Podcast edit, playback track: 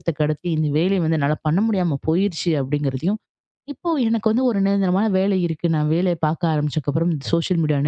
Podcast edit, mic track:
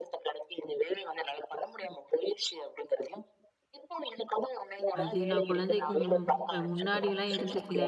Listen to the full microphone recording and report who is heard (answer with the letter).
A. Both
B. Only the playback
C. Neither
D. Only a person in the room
A